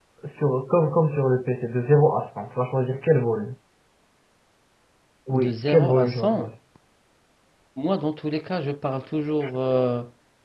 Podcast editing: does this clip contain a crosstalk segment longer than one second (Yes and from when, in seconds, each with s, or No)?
Yes, from 5.3 s